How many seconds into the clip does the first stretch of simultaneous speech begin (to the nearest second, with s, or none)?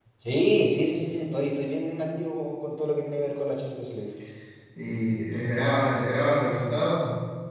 none